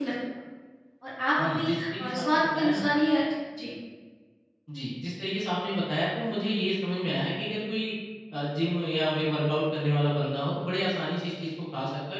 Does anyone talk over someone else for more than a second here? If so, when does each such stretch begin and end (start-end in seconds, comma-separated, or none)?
1.4-2.8